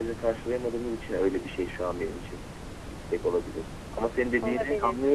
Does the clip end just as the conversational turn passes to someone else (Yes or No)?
No